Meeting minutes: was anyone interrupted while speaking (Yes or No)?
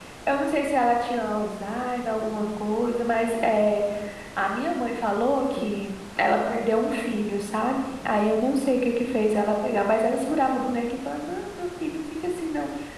No